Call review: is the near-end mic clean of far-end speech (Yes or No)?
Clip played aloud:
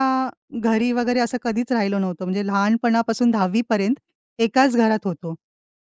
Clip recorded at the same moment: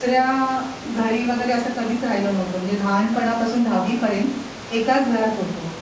No